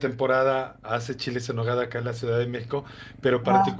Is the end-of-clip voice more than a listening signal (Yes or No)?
No